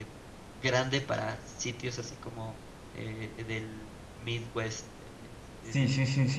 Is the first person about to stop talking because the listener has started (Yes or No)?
Yes